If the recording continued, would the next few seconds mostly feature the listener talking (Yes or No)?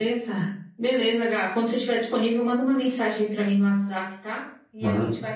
No